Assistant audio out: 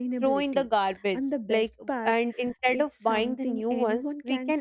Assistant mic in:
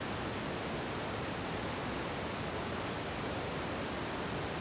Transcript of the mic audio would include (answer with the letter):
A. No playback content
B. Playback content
A